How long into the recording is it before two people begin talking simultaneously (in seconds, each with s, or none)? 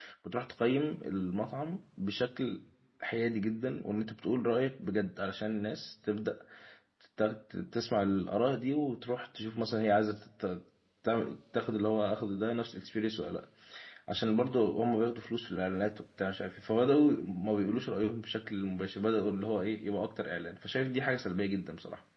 none